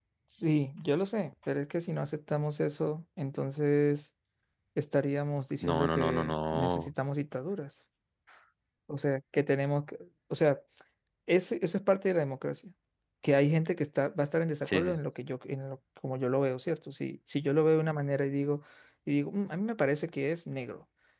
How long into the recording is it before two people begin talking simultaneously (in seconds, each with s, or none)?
5.7 s